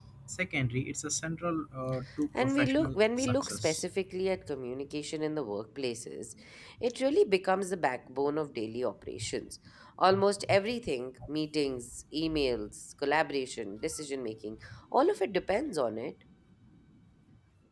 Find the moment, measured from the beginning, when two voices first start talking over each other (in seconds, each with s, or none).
2.3 s